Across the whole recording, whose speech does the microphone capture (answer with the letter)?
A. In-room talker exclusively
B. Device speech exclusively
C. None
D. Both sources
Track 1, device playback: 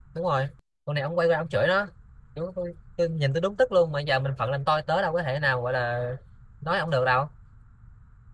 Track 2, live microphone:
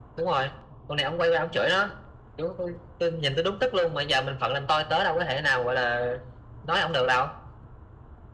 B